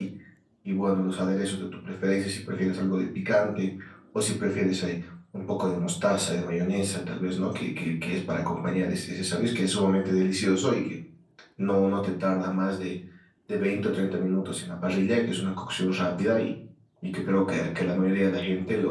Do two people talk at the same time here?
No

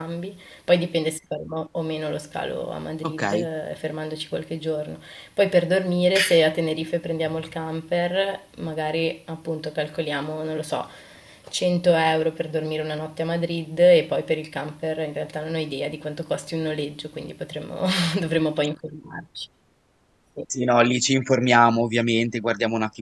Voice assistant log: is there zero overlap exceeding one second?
Yes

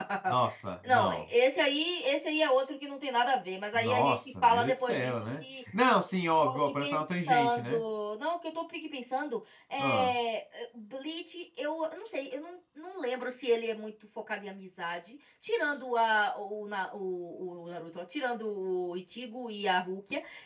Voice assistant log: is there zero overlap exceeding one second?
No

